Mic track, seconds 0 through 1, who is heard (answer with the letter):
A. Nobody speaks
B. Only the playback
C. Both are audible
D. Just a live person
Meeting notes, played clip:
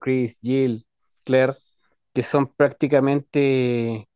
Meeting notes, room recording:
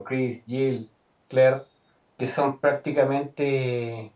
B